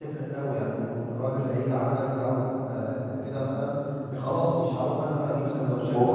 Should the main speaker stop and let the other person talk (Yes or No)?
No